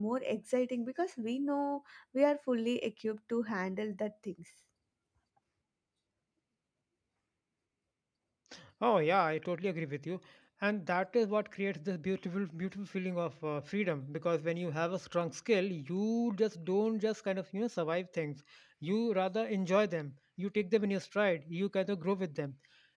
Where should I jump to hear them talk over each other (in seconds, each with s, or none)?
none